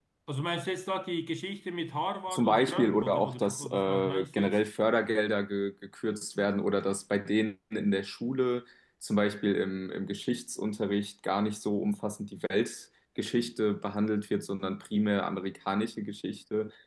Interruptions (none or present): present